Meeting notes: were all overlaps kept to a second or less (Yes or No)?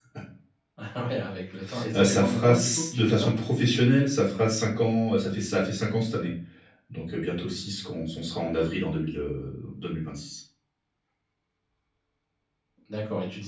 No